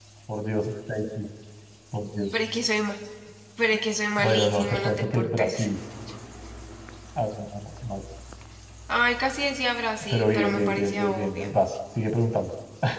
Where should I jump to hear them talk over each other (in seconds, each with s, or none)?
4.2 s